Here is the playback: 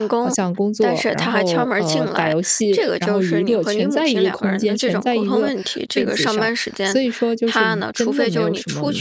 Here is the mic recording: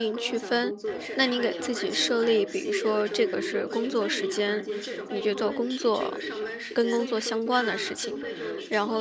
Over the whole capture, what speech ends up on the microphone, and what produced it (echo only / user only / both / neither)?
both